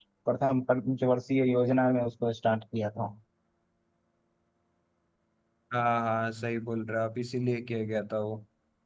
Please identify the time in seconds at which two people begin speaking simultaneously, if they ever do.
none

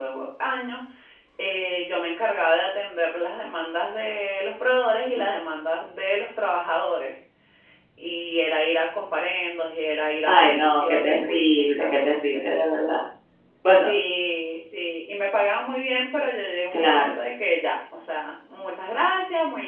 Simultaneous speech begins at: 10.3 s

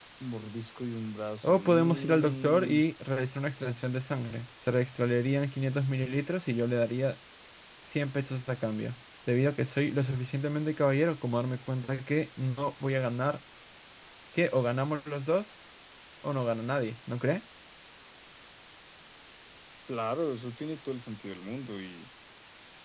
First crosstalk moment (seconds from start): 1.4 s

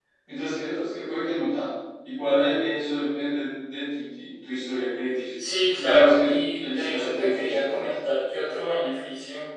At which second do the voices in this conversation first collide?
5.7 s

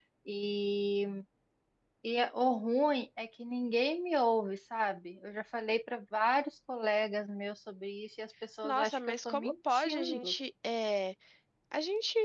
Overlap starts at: 8.6 s

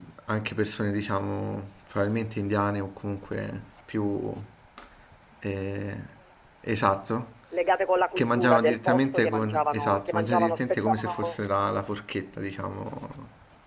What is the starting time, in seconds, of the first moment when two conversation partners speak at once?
8.1 s

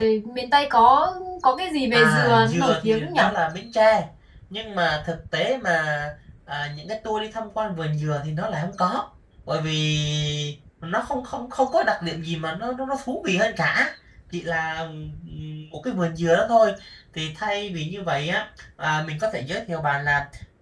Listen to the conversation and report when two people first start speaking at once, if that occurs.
1.9 s

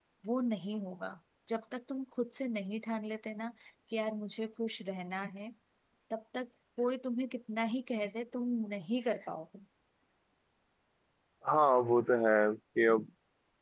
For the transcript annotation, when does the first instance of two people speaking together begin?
none

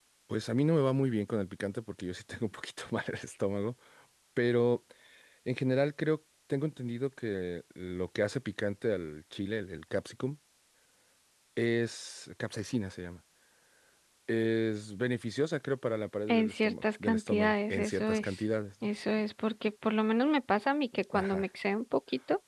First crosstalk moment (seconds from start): 16.3 s

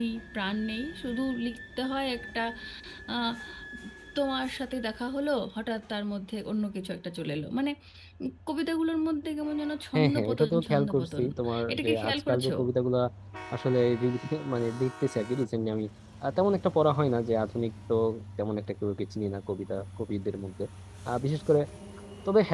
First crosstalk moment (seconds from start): 9.9 s

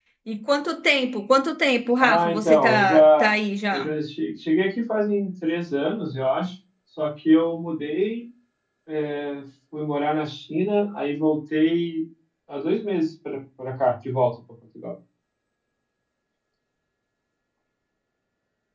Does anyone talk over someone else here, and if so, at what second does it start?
2.0 s

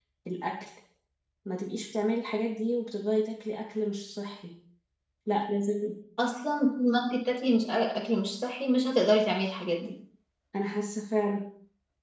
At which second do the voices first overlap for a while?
none

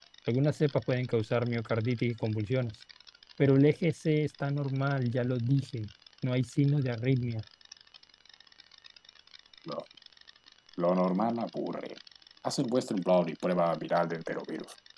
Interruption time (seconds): none

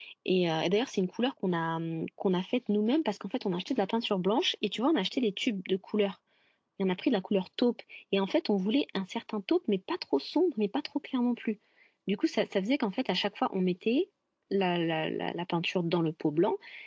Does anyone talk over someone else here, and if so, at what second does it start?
none

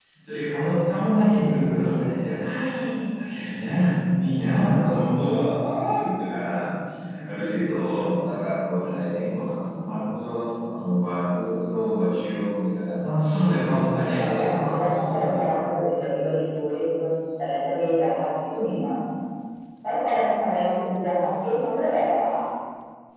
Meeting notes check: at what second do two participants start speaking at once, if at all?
14.2 s

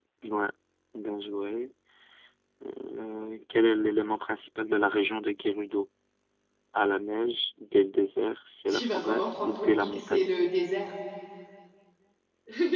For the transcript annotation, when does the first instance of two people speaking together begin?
8.7 s

